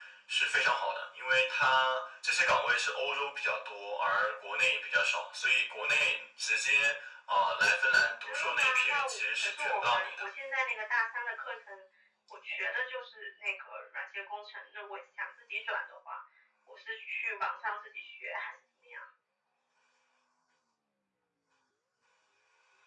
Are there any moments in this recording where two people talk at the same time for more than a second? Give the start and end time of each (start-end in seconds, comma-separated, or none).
8.2-10.3